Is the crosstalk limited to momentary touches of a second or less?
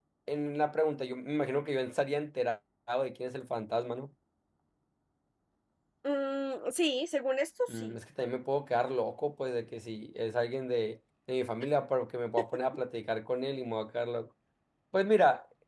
Yes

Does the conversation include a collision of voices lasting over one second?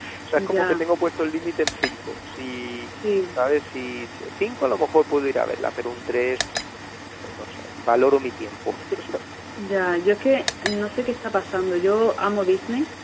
No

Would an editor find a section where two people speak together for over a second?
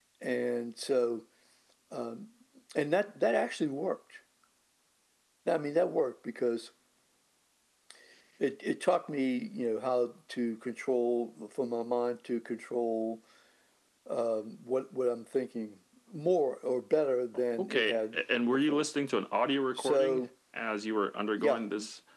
Yes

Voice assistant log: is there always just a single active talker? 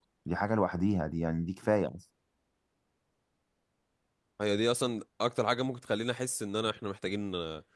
Yes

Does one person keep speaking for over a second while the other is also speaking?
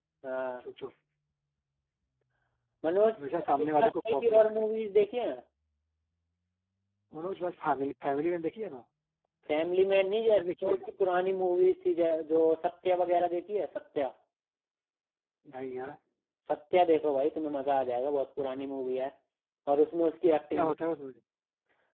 Yes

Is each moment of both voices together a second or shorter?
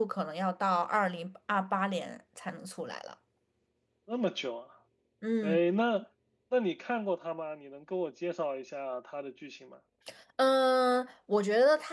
Yes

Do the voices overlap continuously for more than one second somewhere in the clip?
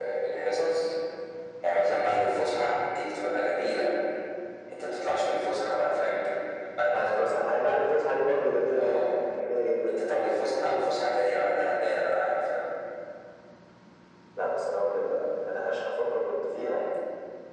No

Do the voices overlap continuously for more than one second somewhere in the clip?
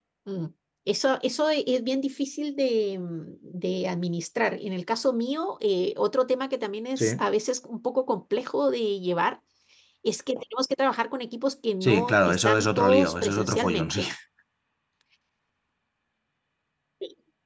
Yes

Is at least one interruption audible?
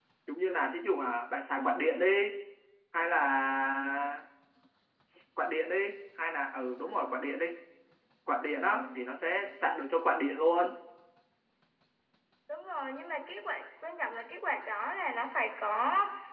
No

